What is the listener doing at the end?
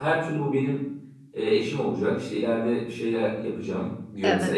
listening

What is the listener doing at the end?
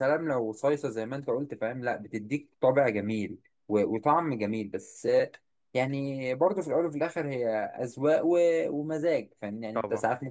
listening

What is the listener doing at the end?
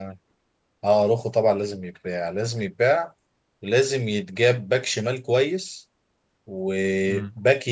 listening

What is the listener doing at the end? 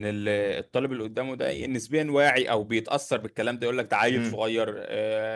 listening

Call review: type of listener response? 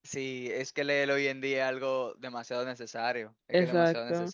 taking over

